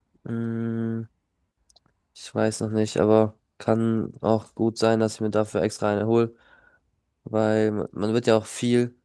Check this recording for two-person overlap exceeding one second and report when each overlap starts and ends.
none

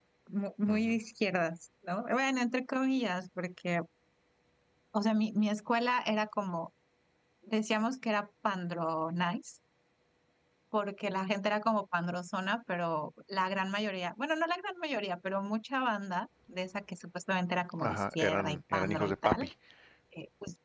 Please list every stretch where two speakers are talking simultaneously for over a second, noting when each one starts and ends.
17.8-19.5

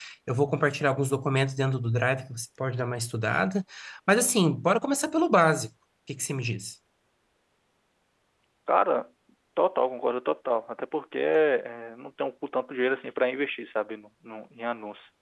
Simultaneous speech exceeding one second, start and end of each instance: none

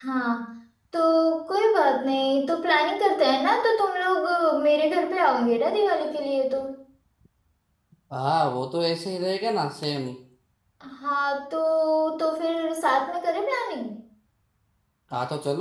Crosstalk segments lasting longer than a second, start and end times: none

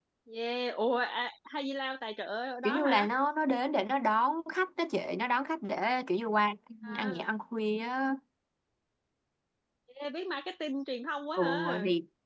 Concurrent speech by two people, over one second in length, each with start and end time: none

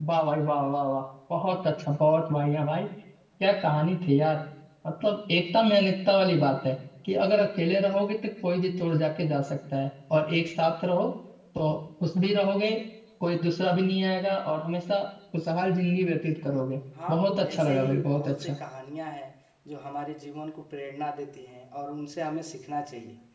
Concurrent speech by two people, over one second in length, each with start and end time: 17.1-18.6

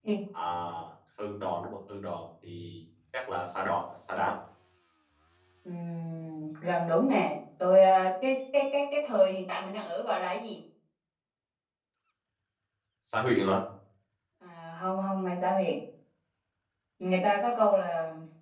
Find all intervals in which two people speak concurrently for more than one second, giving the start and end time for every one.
none

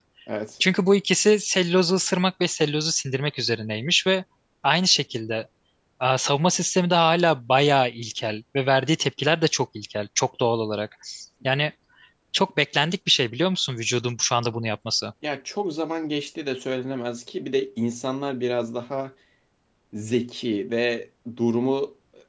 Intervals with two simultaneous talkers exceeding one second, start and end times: none

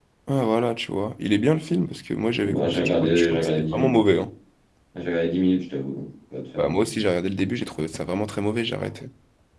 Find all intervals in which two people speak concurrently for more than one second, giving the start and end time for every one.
2.4-3.9

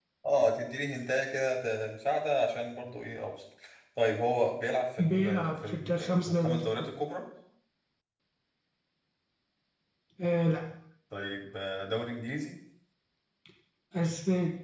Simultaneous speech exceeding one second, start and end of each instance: 5.0-6.9

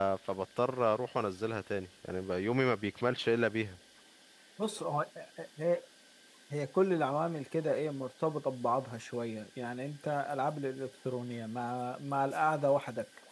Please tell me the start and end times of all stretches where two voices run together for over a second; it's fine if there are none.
none

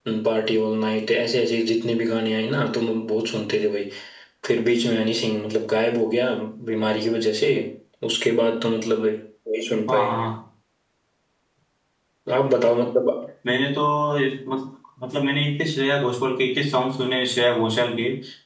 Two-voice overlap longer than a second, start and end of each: none

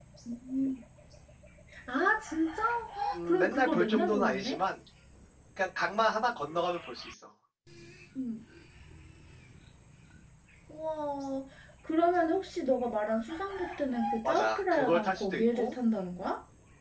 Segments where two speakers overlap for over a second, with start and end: 3.1-4.6, 14.2-15.8

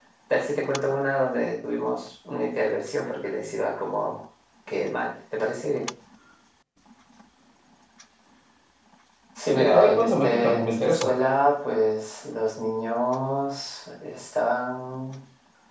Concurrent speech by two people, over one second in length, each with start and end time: 9.6-11.1

